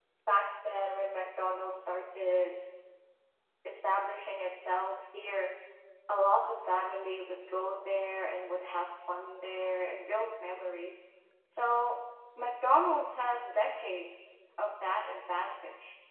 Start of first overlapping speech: none

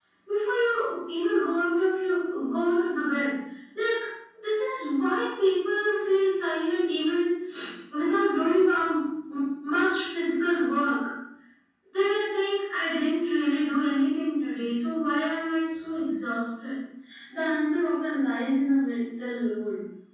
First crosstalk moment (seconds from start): none

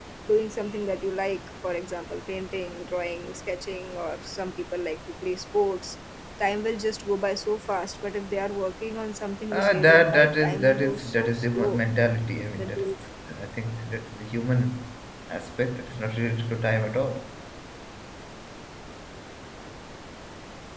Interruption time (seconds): 9.5 s

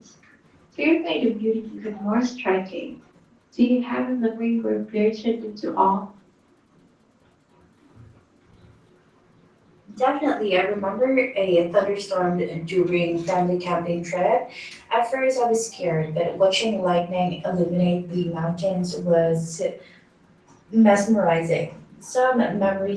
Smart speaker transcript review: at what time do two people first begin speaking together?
none

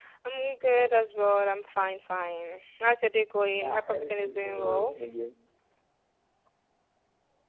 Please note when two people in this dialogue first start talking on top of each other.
3.6 s

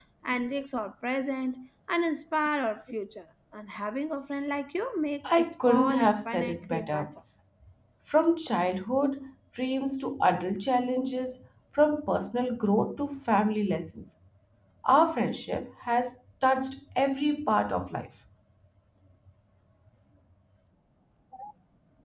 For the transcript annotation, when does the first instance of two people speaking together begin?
5.2 s

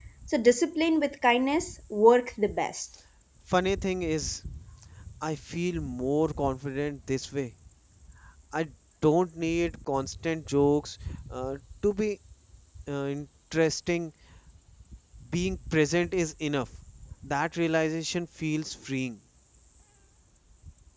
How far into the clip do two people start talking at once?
none

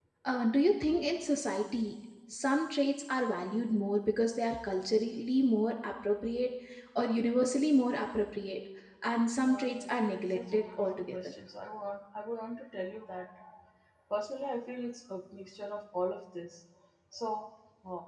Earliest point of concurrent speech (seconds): 9.5 s

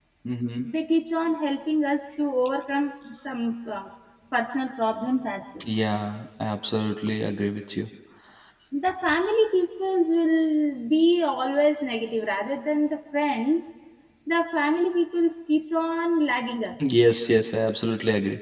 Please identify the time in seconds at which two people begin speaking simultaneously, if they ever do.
none

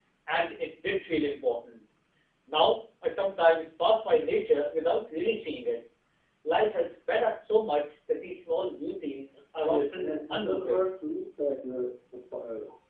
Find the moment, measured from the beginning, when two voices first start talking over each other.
9.6 s

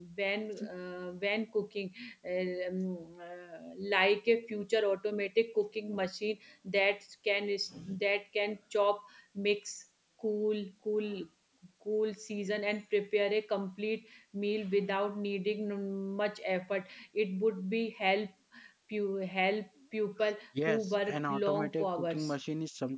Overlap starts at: 20.7 s

